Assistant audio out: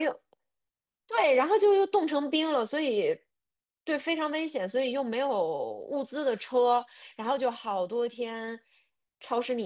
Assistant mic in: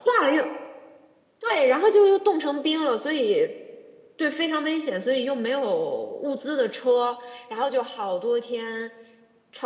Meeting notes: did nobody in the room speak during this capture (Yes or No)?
Yes